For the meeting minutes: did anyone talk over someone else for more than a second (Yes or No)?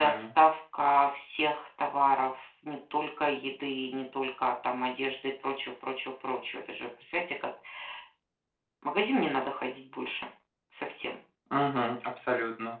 No